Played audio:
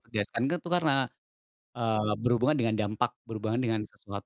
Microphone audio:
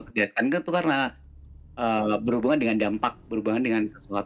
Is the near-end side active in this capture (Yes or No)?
No